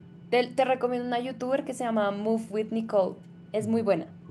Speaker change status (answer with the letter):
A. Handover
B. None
A